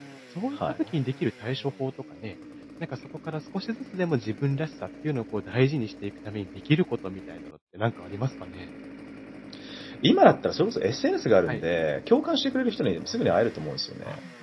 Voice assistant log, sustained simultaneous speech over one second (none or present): none